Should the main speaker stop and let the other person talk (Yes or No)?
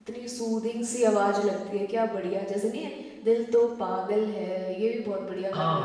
Yes